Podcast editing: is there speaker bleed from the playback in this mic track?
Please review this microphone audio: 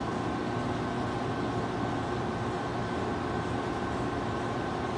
No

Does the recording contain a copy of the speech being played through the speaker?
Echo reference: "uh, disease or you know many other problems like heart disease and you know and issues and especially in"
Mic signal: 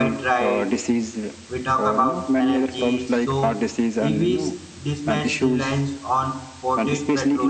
Yes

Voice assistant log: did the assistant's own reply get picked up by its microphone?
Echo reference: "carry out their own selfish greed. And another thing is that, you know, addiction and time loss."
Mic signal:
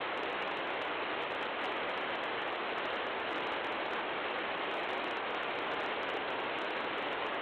No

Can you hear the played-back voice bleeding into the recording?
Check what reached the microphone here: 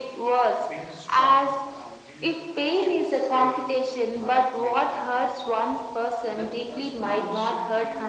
Yes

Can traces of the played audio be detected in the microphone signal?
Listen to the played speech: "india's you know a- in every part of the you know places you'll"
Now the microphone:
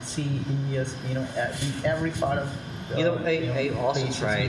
Yes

